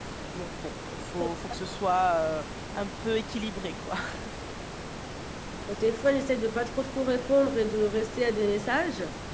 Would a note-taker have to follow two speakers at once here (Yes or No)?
No